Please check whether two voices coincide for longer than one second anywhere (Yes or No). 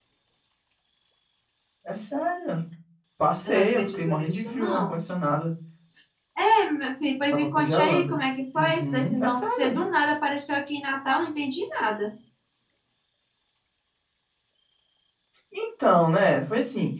Yes